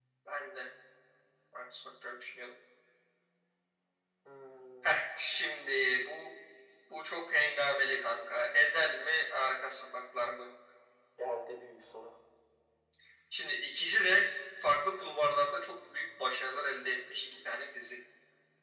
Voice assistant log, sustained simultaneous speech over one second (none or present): none